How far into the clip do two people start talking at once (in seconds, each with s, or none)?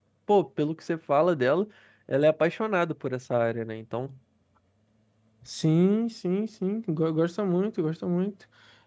none